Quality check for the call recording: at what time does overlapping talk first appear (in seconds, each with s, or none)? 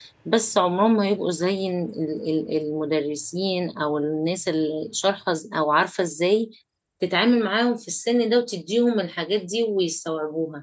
none